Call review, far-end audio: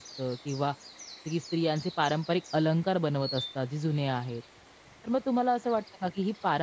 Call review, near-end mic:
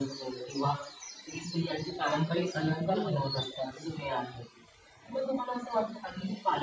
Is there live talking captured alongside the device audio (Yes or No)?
Yes